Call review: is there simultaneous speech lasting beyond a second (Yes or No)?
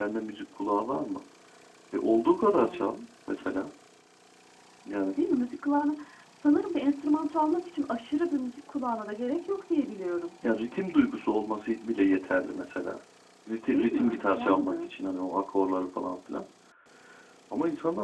Yes